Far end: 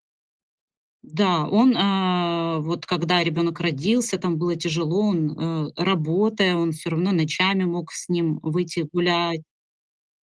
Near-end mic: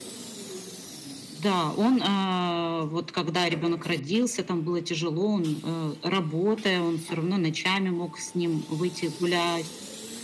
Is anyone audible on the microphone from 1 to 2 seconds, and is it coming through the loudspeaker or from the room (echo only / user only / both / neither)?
echo only